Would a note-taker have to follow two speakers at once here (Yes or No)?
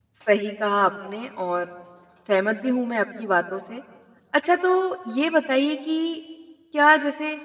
No